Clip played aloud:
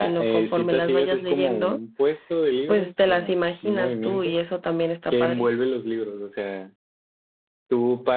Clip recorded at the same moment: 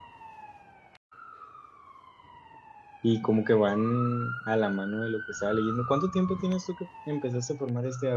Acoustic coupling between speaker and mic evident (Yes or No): No